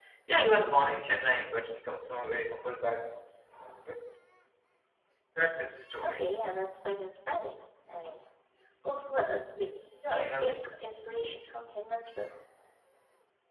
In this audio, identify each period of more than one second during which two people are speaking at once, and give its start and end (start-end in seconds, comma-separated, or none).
none